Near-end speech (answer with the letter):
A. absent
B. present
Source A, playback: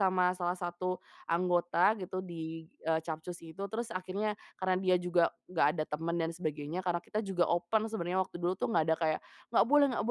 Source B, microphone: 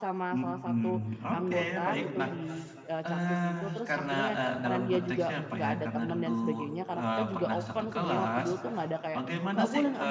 B